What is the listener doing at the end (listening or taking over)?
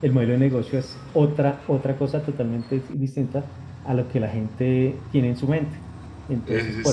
listening